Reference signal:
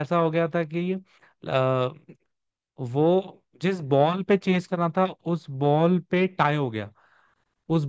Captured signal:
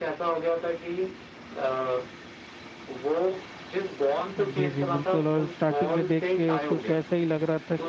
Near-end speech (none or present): present